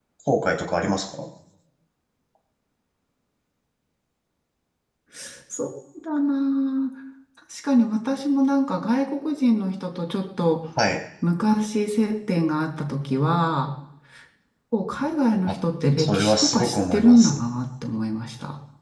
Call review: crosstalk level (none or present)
present